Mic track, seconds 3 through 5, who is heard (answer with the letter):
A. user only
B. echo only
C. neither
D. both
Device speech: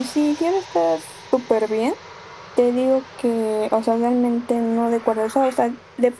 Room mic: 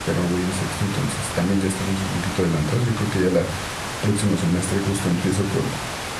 A